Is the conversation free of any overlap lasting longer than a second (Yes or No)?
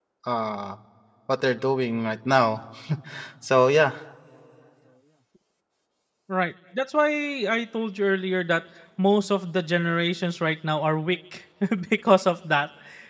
Yes